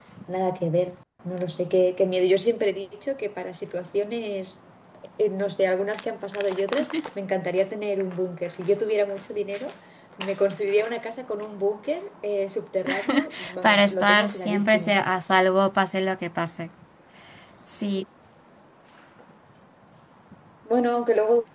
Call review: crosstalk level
present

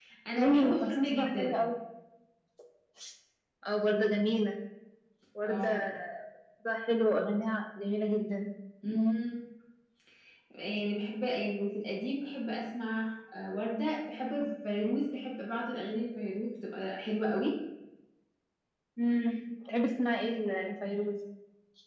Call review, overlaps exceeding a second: present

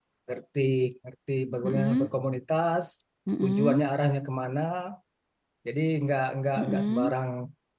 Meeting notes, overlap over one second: none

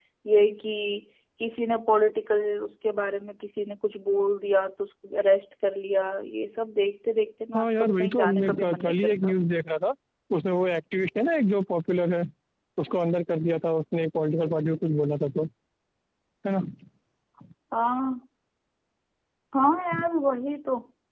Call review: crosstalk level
present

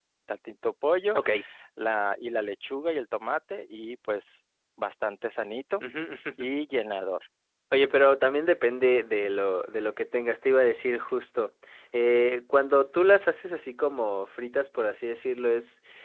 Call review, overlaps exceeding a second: none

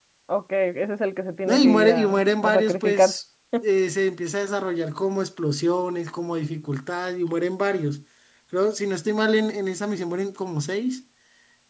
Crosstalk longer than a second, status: present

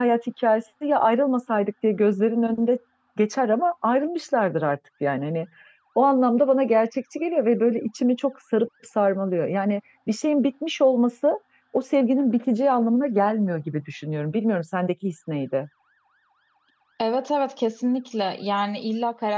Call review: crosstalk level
none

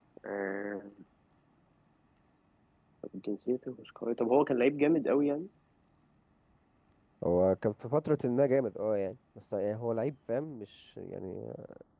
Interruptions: none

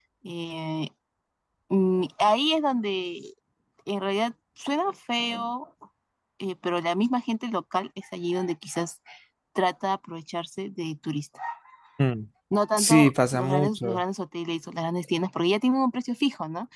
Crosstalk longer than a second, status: present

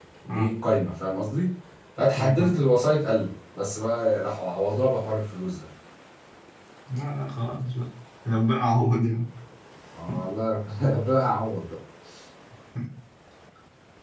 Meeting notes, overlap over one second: none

